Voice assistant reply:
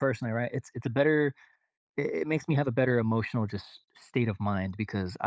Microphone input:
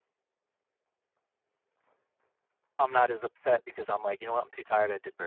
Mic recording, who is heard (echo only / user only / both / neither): user only